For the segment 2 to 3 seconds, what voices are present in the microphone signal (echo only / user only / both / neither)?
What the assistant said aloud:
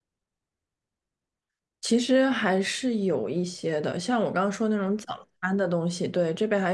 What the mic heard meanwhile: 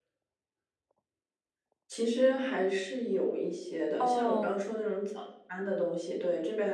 echo only